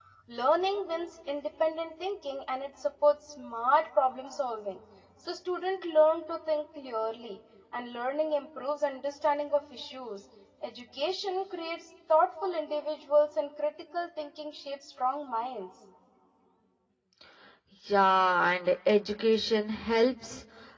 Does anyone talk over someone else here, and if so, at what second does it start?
none

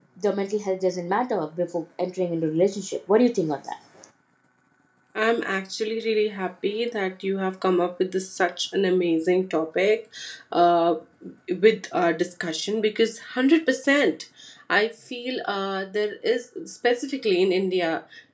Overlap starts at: none

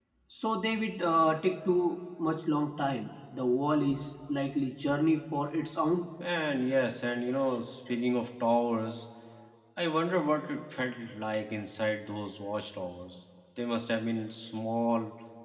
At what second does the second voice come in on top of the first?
none

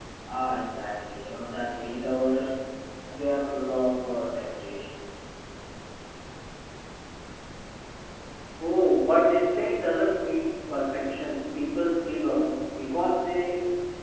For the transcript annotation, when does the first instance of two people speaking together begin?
none

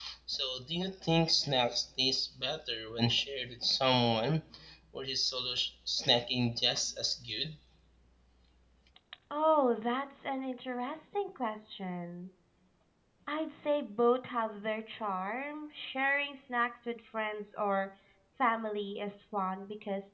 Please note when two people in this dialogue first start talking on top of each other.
none

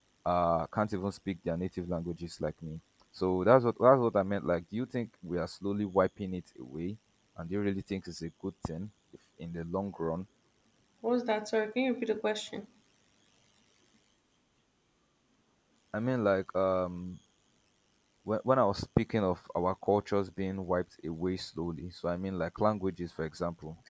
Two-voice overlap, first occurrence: none

